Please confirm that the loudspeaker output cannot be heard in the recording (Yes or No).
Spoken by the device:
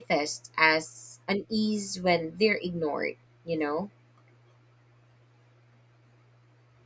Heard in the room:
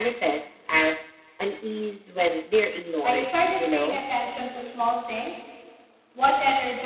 No